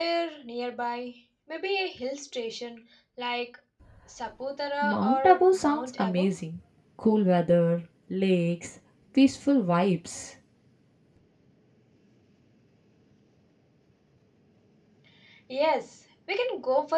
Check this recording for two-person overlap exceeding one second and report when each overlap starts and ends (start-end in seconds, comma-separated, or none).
4.8-6.3